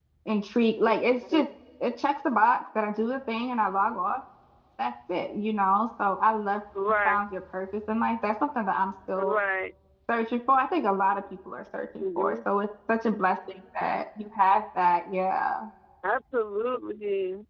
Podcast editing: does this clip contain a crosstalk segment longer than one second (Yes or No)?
No